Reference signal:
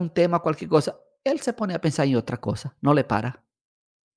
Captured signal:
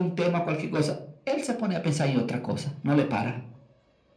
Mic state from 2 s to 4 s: echo only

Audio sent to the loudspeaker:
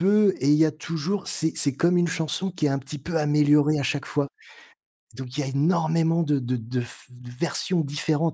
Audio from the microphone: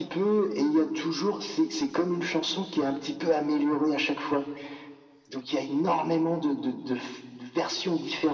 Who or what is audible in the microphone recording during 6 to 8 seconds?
echo only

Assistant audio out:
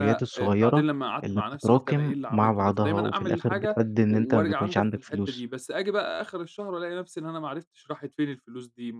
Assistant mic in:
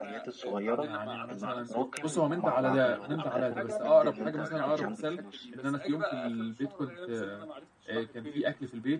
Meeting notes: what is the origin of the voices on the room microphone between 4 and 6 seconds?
both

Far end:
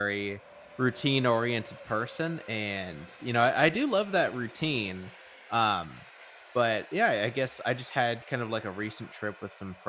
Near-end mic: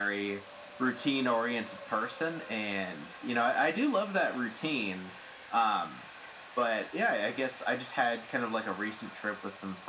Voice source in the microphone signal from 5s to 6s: echo only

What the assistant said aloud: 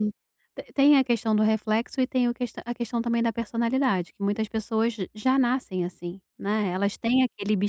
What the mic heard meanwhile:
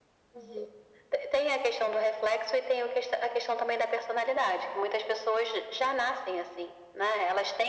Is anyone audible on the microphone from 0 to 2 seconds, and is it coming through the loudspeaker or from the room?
echo only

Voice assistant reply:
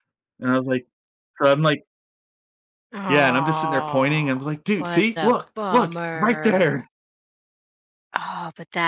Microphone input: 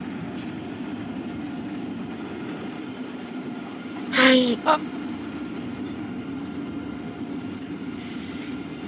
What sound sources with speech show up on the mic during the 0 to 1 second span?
neither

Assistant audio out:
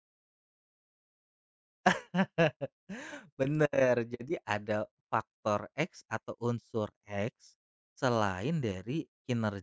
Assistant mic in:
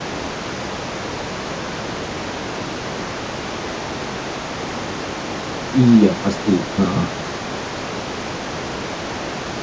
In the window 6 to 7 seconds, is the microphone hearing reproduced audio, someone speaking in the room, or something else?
user only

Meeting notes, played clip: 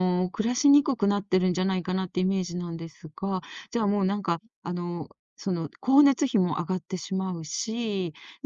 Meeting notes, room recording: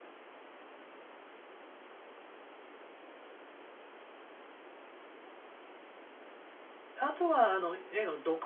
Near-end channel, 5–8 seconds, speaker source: user only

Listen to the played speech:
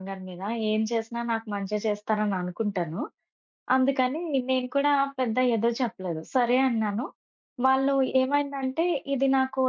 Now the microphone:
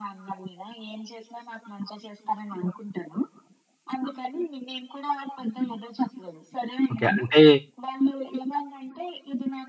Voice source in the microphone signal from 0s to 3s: echo only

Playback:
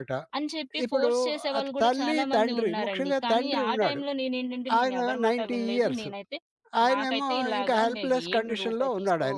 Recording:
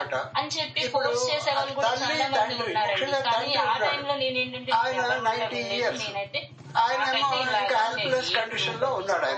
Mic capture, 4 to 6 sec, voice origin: echo only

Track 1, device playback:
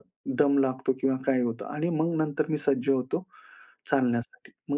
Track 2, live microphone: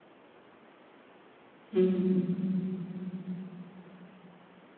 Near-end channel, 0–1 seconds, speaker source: neither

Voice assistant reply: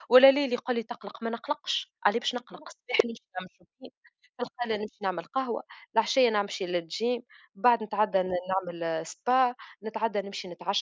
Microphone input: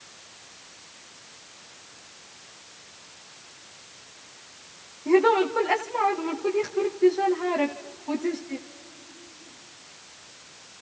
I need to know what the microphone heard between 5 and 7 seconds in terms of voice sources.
user only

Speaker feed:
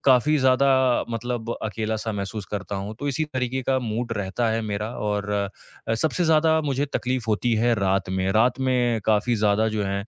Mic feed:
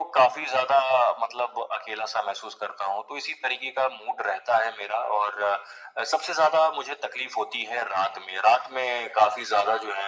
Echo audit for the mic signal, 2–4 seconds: echo only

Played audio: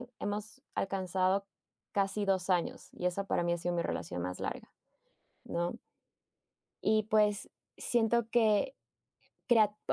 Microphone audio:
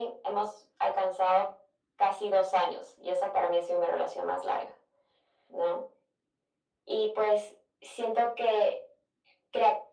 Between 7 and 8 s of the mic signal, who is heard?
echo only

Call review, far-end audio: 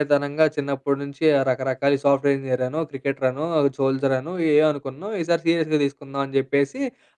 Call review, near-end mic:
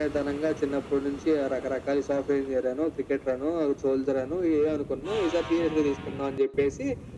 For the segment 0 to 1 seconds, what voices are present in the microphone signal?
echo only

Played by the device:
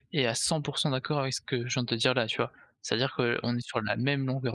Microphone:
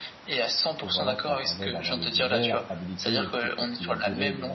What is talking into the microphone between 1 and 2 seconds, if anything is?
both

